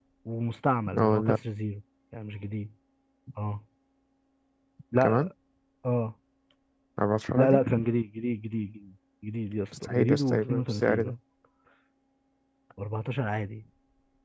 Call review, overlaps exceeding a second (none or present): present